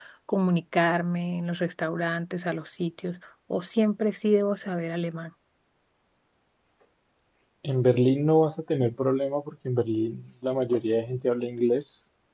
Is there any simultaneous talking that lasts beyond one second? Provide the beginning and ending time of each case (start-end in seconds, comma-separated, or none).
none